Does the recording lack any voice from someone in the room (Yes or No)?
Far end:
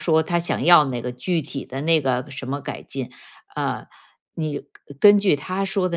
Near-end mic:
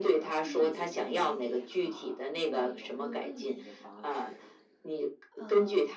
No